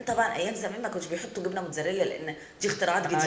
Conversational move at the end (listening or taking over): taking over